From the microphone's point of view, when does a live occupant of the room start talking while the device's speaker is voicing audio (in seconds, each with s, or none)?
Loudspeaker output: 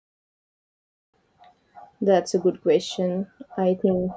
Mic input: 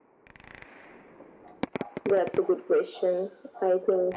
none